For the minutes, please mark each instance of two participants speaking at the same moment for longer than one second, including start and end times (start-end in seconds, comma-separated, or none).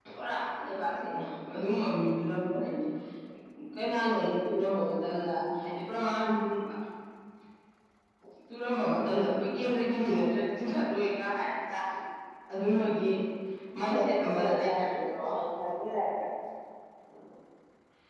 13.9-15.2